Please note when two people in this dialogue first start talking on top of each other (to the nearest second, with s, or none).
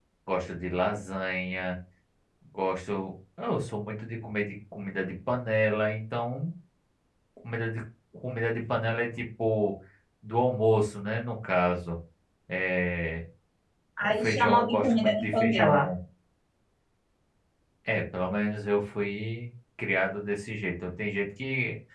14 s